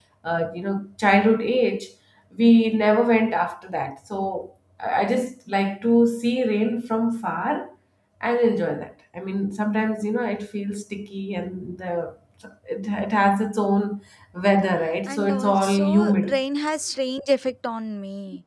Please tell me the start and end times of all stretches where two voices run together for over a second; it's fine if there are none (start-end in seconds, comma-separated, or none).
15.1-16.4